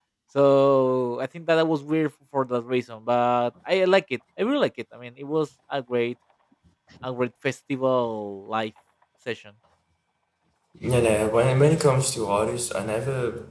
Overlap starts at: none

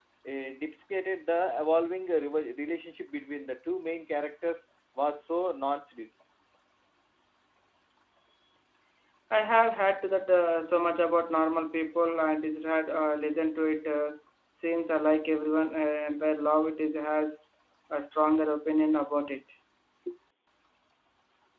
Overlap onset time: none

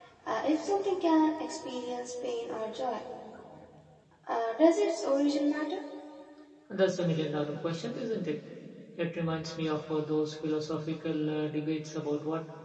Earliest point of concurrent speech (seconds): none

